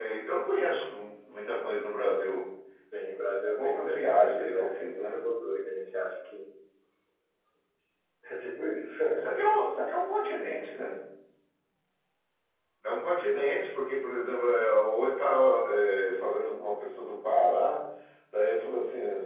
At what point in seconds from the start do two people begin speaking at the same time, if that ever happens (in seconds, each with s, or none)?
3.6 s